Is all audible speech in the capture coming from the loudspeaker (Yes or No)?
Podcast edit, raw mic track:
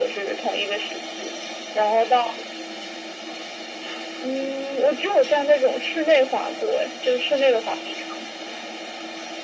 Yes